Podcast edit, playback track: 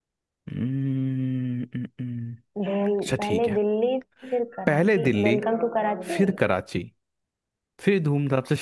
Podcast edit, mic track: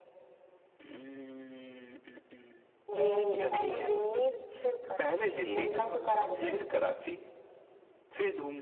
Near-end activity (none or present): present